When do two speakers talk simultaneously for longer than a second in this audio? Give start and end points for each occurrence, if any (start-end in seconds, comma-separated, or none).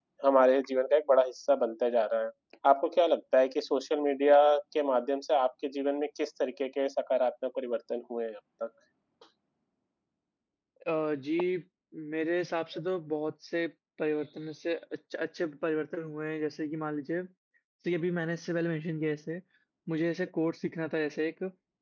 none